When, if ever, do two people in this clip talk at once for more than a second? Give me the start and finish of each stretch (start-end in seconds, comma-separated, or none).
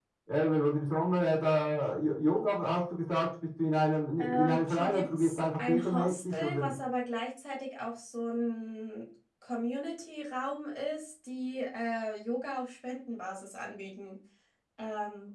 4.2-6.7